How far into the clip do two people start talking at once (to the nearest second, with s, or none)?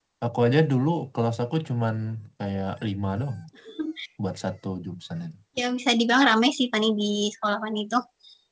none